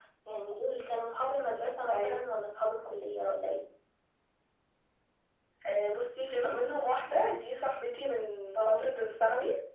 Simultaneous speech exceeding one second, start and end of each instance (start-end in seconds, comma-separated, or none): none